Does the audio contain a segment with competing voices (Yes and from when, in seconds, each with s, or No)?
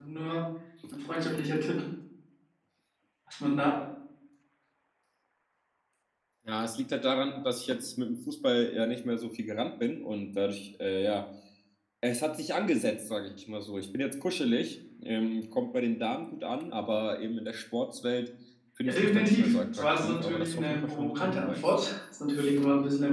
Yes, from 18.9 s